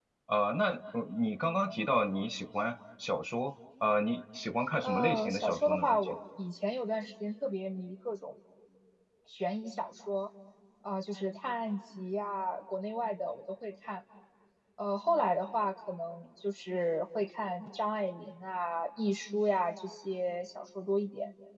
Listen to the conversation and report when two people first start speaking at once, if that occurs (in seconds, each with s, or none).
4.8 s